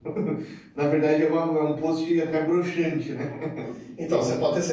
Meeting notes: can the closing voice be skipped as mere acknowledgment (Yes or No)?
No